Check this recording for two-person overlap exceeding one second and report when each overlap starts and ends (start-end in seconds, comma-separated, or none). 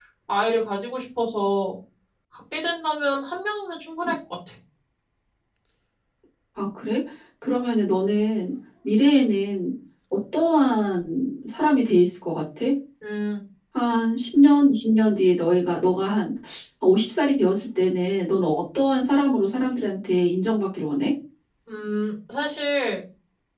none